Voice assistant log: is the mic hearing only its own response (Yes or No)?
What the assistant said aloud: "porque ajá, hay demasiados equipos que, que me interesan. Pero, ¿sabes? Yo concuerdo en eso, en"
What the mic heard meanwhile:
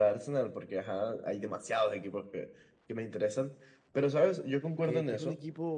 No